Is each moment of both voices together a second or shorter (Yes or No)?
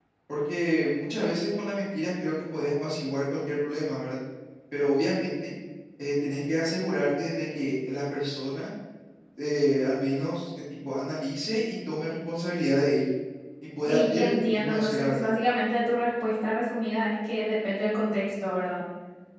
No